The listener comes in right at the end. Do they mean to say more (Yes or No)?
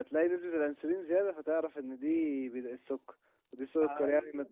No